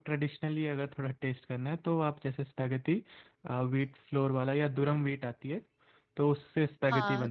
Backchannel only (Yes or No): No